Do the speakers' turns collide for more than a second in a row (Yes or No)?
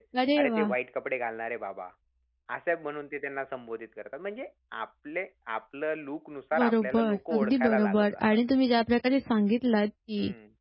Yes